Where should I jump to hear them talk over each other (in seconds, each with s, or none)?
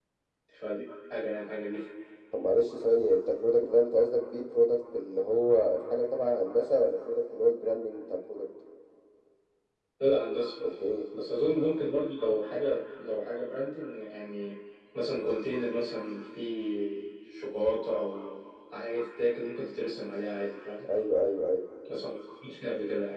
none